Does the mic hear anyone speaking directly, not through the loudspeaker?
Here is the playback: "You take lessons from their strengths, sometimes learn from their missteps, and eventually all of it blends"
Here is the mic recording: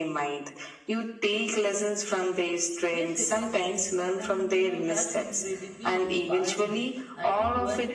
Yes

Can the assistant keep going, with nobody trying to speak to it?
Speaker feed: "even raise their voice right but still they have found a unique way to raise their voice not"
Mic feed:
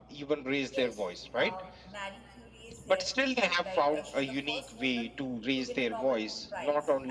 No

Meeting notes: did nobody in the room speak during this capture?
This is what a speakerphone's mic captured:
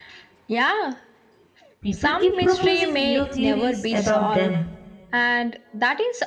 No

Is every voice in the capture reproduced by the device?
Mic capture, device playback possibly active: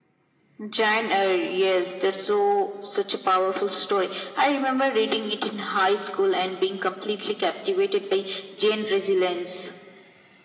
Yes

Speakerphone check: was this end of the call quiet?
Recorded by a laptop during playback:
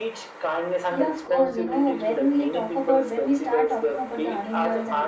No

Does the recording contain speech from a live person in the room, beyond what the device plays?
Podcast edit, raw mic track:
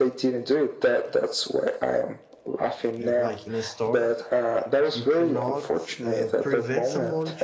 Yes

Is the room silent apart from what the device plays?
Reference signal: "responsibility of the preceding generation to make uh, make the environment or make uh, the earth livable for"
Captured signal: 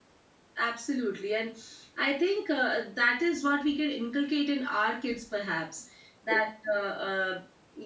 No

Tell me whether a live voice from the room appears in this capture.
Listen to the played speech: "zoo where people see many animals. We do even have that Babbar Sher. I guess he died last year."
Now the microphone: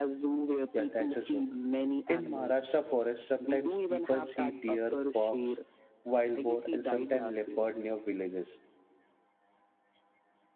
Yes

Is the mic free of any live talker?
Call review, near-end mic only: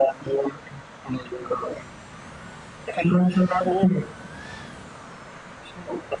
Yes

